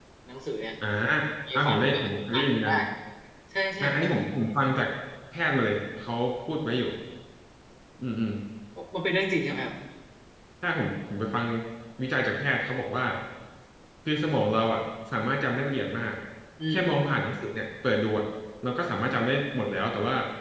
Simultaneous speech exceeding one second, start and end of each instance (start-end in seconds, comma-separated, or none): 1.6-2.8